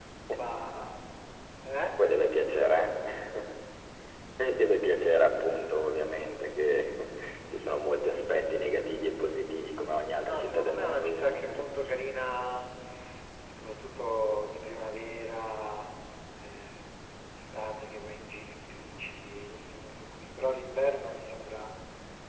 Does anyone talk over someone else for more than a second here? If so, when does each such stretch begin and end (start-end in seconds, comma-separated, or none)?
10.2-11.6